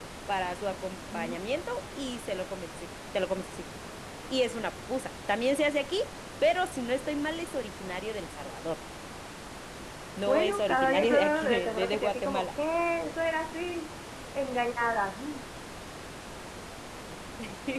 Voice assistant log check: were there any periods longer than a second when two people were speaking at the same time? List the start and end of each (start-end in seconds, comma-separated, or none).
10.3-12.5